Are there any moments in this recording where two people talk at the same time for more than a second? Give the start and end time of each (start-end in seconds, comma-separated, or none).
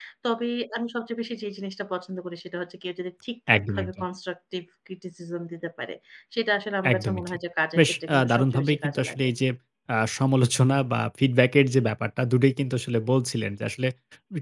7.8-9.3